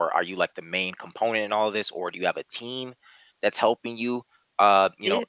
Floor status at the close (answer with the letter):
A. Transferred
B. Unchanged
B